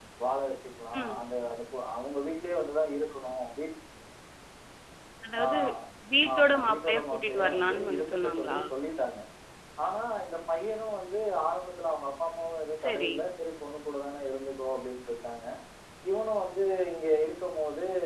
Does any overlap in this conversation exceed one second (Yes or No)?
Yes